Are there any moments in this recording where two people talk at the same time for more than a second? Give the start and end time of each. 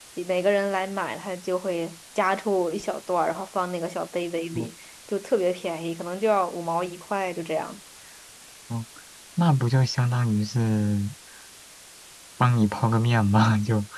none

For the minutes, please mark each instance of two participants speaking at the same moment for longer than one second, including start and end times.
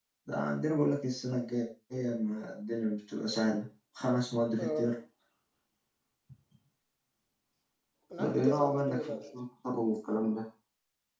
8.2-9.4

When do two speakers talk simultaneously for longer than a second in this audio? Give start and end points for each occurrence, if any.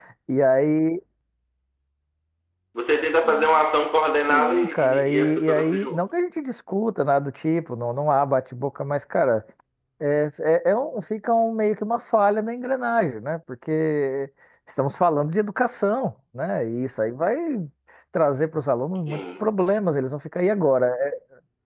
4.2-6.0

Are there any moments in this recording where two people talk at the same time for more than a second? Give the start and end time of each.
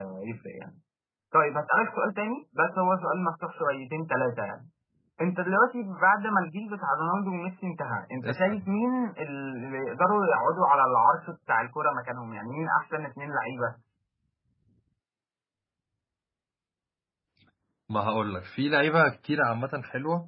none

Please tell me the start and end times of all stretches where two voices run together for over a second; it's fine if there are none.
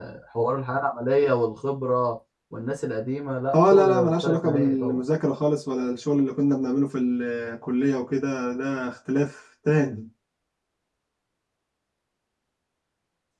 3.5-5.0

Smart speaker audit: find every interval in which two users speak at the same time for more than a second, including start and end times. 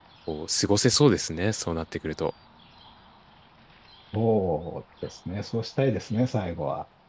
none

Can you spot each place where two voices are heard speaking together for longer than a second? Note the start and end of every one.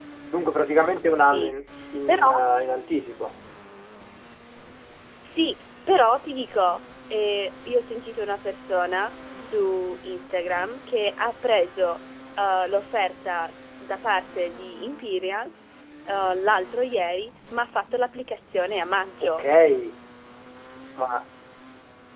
none

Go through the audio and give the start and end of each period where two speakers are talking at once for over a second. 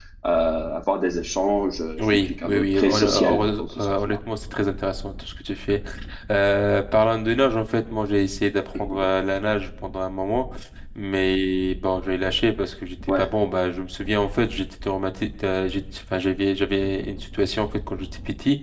2.1-4.2

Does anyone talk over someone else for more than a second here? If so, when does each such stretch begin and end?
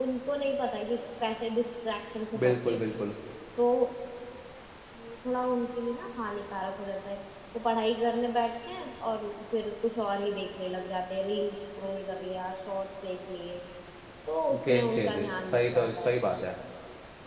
14.6-16.2

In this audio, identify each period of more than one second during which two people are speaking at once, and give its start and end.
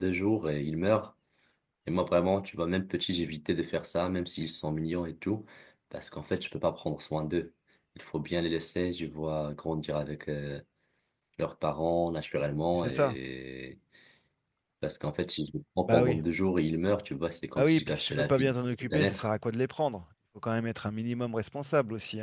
17.6-19.3

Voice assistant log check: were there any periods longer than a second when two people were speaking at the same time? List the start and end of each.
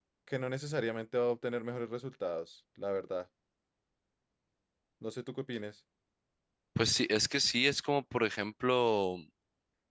none

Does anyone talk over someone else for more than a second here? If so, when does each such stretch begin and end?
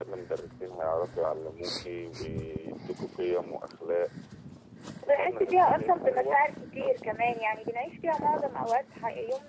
5.1-6.4

